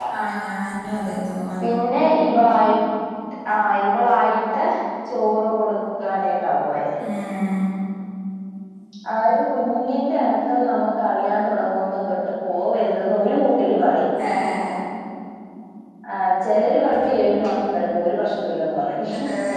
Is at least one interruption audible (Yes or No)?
No